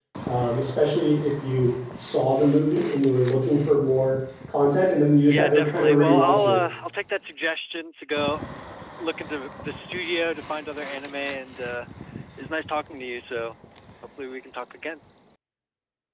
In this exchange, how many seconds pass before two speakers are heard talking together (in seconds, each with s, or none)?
5.3 s